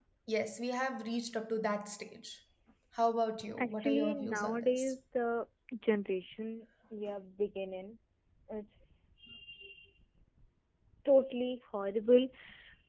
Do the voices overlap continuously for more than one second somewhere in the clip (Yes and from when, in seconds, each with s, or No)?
Yes, from 3.6 s